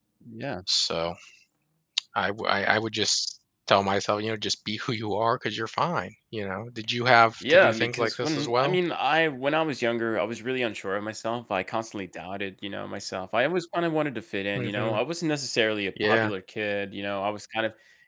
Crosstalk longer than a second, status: present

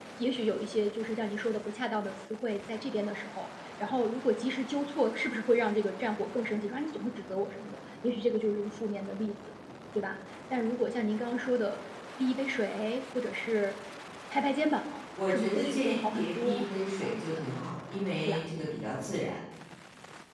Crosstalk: present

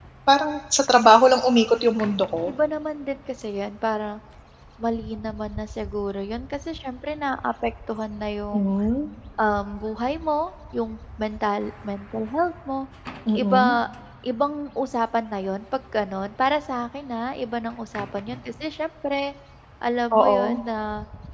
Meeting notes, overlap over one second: none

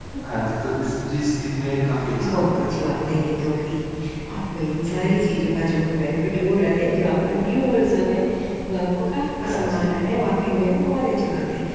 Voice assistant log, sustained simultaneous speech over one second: none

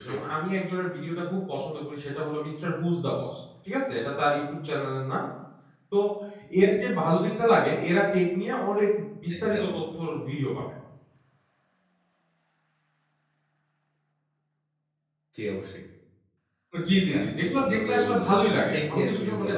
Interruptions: present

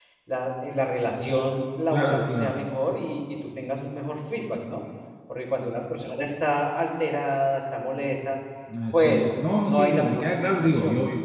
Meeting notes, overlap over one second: present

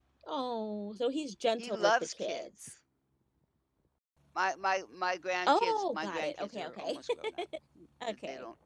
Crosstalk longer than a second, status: present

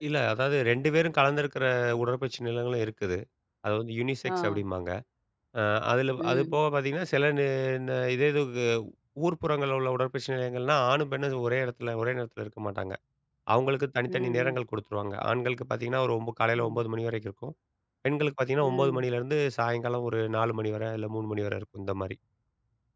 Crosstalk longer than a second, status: none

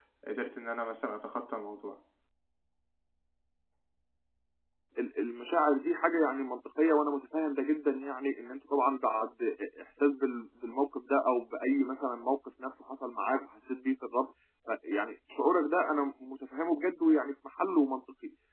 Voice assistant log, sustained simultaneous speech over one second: none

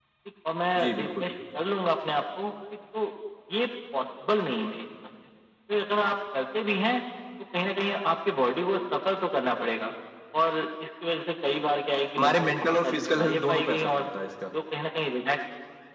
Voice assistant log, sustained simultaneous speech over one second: present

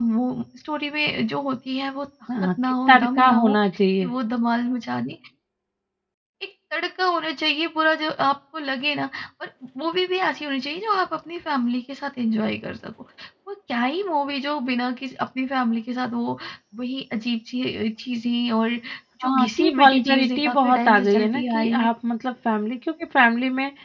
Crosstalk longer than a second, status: present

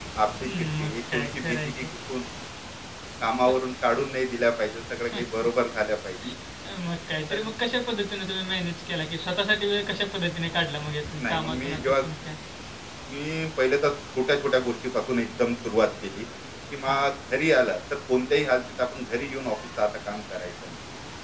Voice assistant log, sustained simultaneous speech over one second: present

